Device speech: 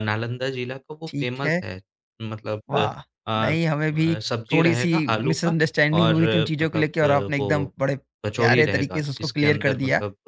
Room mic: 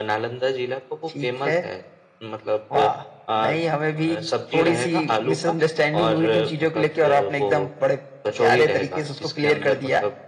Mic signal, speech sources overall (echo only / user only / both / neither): echo only